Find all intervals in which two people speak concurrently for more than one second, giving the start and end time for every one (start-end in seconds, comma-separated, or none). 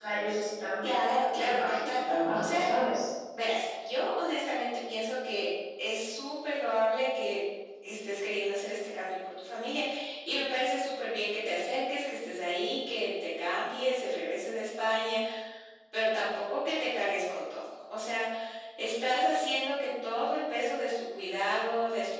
1.4-2.6